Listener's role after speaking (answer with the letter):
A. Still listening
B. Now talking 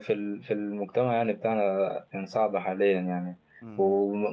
A